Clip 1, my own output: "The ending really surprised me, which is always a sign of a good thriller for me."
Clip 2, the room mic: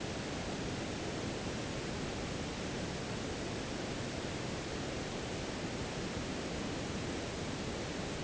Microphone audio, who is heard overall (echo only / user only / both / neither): neither